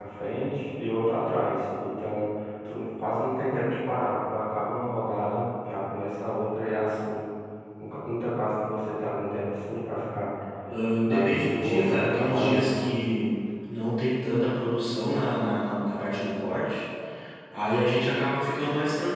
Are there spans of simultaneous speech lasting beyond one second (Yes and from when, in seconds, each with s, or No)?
Yes, from 11.0 s